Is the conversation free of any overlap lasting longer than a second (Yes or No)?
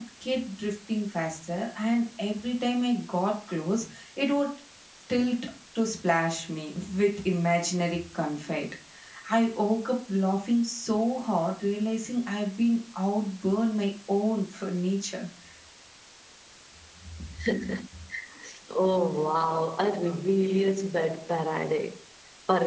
Yes